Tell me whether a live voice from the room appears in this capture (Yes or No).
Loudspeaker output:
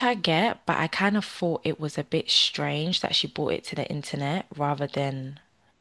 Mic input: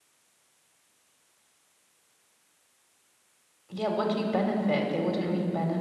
Yes